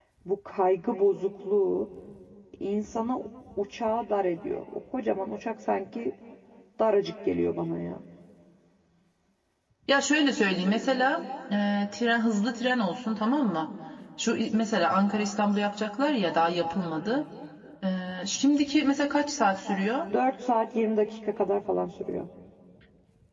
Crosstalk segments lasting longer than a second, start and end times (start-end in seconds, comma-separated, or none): none